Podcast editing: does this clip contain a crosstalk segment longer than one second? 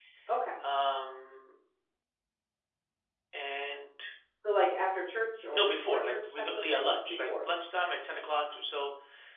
Yes, from 5.5 s

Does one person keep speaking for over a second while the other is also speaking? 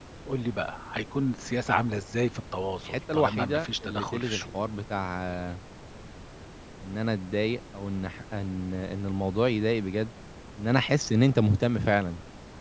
Yes, from 2.9 s

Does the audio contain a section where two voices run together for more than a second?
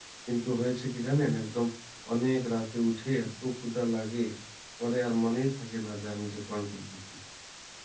No

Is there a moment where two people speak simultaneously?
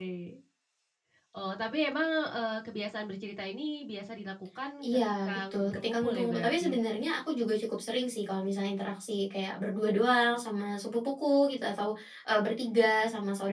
Yes, from 4.8 s

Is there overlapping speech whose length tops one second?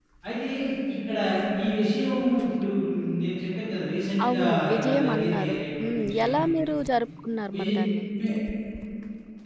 Yes, from 4.2 s

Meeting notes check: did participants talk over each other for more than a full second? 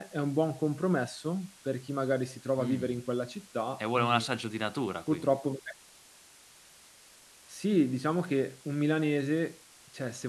No

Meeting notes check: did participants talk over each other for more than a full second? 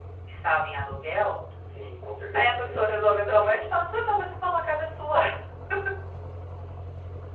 No

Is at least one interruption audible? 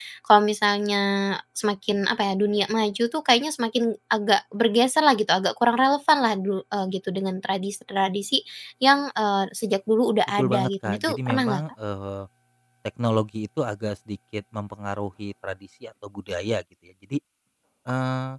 Yes, from 10.4 s

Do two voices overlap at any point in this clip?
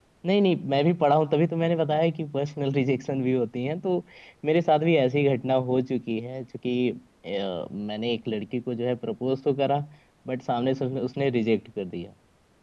No

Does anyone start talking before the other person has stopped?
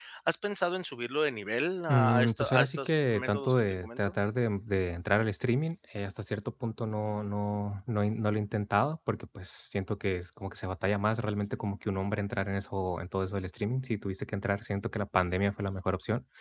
Yes, from 1.9 s

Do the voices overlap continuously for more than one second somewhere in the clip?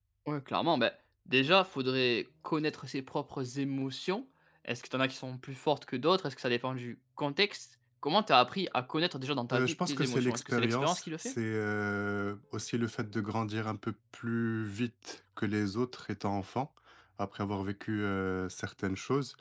Yes, from 9.5 s

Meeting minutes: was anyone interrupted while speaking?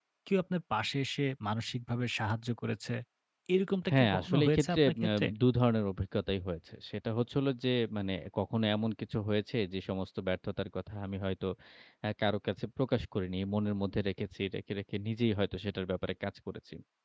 Yes, from 3.9 s

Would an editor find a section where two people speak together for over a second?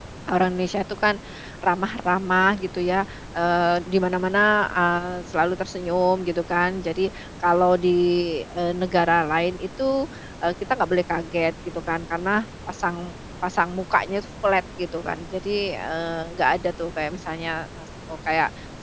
No

